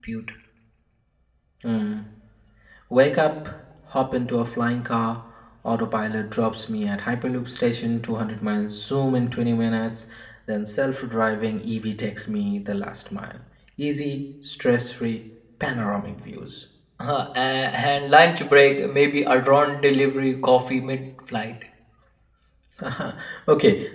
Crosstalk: none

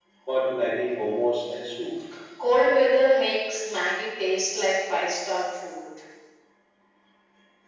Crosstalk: none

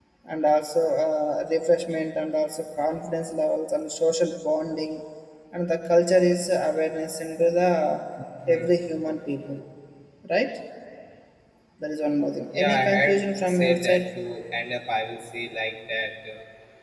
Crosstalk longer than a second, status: present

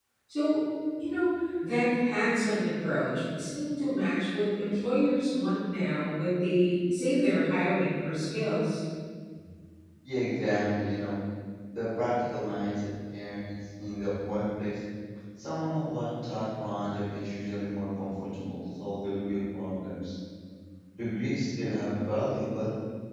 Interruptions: none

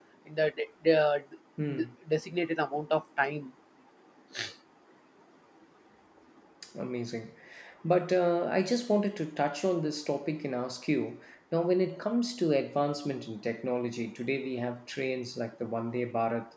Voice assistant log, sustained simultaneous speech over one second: none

